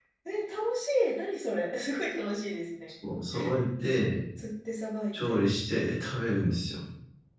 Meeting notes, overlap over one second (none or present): none